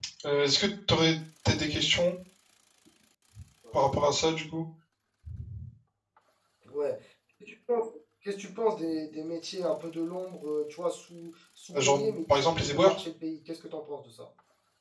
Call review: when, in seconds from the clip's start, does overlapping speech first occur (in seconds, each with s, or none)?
11.7 s